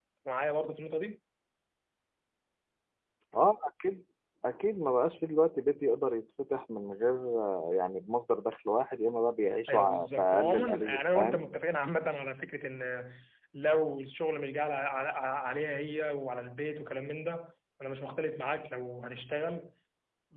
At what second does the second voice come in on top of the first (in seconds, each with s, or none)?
9.7 s